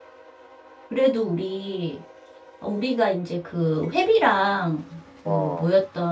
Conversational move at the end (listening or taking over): listening